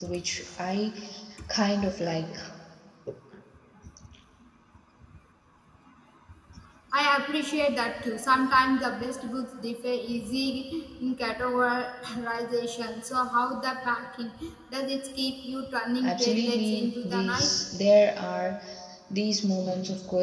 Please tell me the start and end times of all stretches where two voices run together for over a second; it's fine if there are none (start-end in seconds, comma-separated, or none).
16.0-17.5